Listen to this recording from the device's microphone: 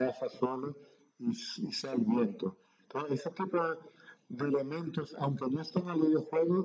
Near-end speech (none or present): none